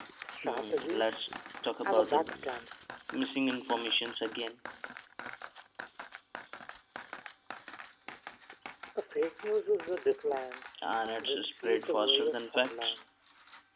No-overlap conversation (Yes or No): No